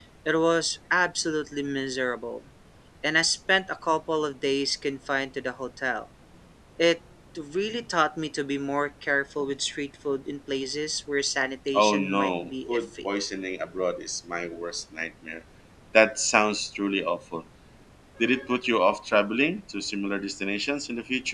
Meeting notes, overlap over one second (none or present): present